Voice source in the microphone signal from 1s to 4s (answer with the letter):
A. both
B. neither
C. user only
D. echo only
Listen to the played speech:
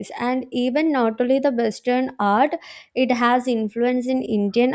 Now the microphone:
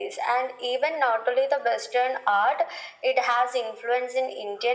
D